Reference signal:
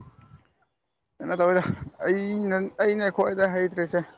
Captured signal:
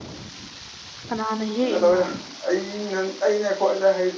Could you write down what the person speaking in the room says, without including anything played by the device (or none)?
ꯀꯅꯥꯅ ꯍꯦꯛ ꯏꯅꫭ